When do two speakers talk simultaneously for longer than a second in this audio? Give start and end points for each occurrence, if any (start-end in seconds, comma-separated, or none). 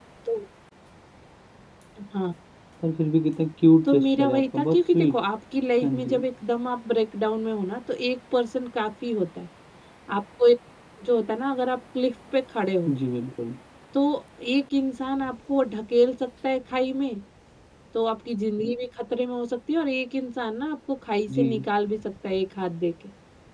3.9-5.2